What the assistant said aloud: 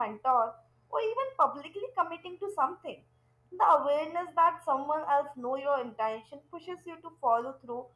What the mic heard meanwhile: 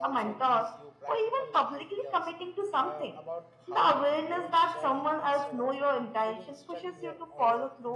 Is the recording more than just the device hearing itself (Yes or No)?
Yes